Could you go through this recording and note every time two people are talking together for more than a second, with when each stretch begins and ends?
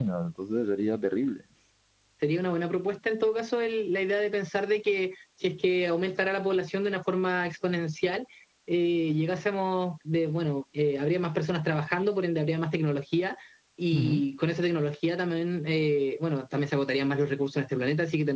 none

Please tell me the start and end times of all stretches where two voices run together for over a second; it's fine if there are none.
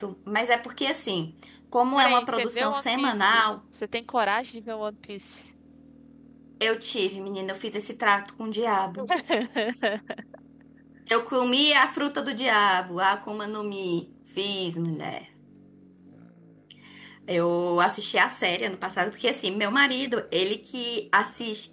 2.0-3.5

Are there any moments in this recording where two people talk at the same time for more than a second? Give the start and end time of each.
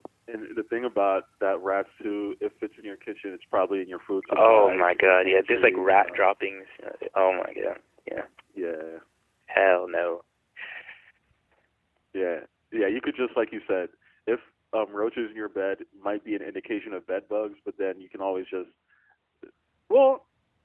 4.3-6.2

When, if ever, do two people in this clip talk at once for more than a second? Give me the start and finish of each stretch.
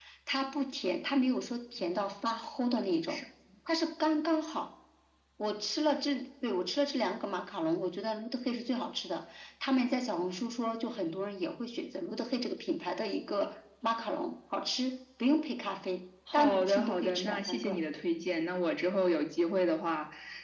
16.3-17.8

